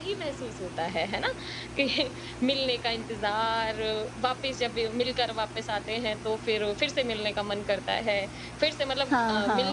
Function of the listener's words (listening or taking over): listening